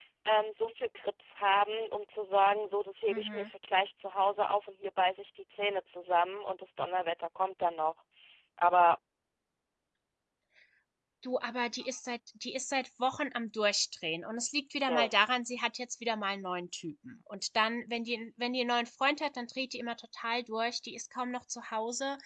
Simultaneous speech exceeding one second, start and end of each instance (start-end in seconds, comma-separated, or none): none